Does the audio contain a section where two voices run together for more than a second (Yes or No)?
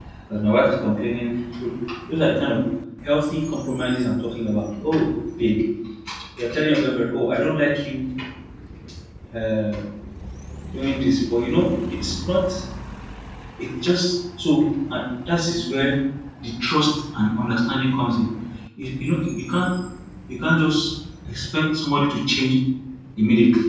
No